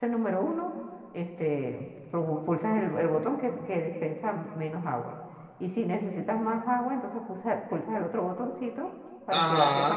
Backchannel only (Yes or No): No